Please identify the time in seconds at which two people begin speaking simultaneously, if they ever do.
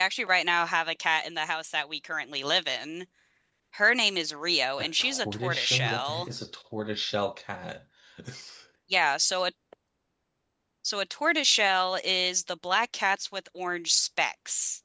5.0 s

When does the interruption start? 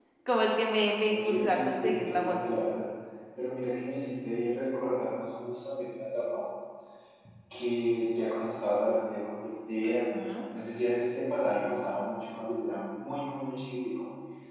1.1 s

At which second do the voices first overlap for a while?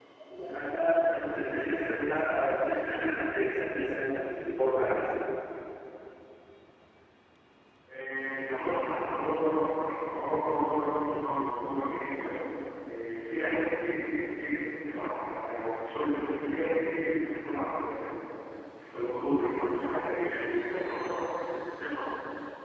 none

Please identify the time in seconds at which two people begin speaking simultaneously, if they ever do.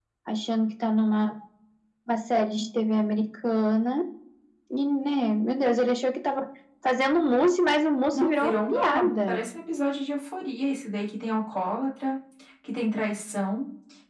8.1 s

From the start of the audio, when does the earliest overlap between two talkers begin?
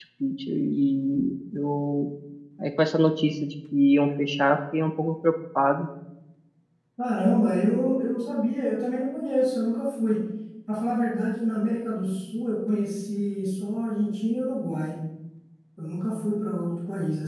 none

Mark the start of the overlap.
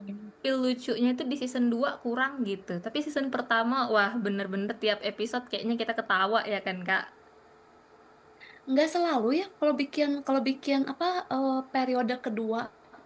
none

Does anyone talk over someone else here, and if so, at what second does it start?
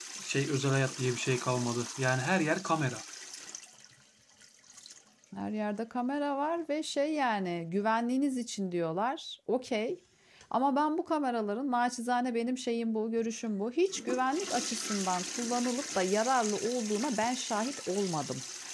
none

